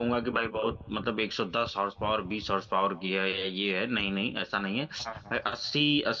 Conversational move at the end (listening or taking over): listening